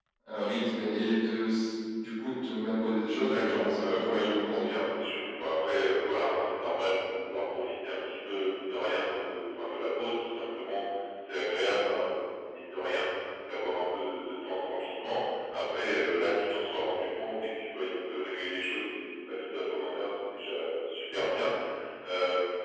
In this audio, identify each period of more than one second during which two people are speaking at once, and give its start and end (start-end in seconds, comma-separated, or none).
3.2-4.6